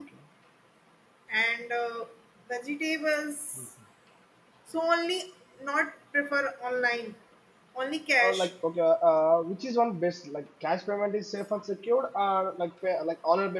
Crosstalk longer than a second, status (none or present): none